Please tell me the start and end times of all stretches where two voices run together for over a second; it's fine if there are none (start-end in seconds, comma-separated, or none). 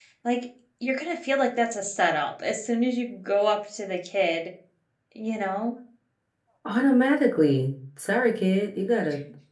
none